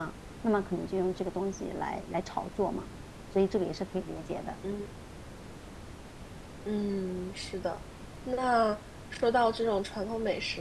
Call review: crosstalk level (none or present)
none